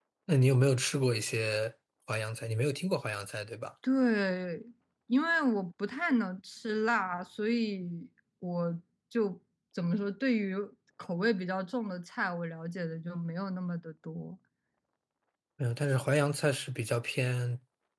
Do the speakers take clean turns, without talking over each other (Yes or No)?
Yes